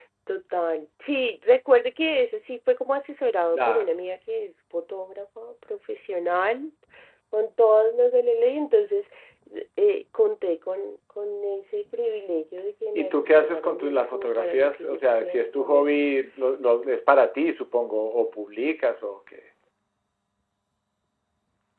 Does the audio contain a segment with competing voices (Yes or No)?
Yes